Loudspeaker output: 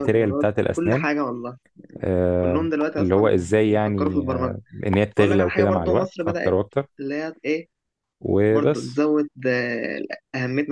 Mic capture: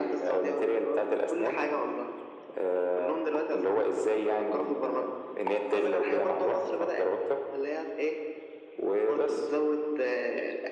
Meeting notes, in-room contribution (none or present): none